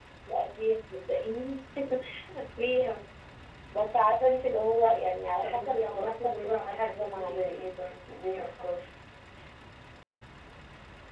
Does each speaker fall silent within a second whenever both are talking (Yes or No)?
No